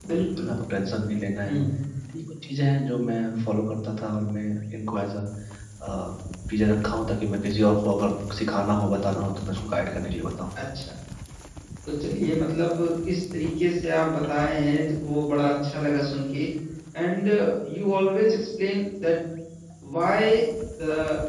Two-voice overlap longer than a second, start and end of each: none

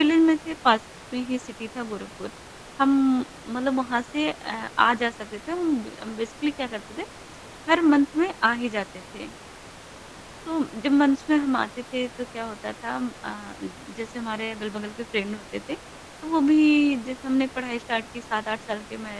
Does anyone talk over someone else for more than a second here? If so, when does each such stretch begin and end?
none

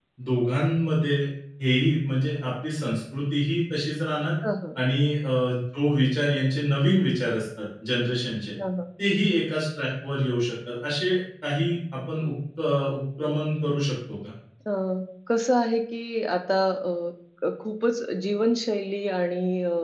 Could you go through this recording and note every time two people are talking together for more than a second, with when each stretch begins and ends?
none

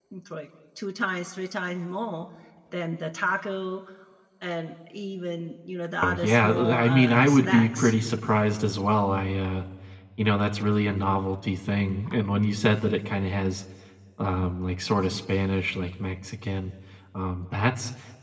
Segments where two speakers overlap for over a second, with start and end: 6.0-7.9

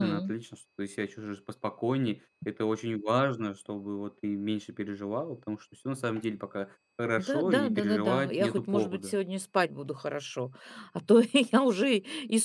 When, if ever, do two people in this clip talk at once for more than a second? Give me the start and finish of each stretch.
7.2-9.1

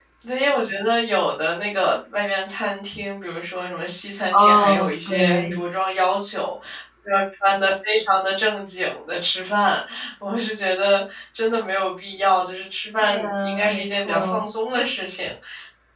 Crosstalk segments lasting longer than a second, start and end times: 4.3-5.5, 13.0-14.5

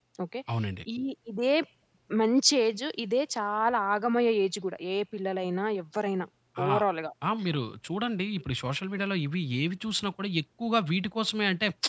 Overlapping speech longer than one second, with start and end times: none

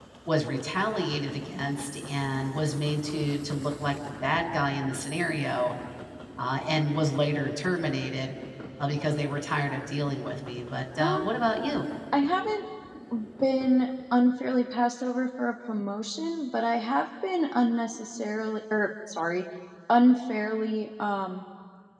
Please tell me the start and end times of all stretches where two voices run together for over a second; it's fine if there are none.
none

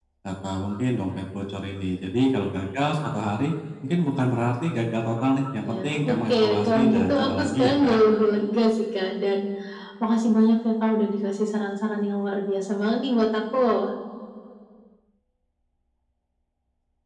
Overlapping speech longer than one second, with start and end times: 5.7-8.0

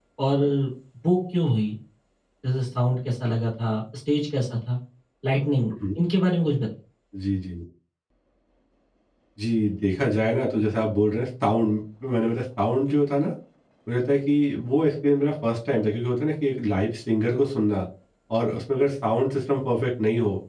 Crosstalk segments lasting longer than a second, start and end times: none

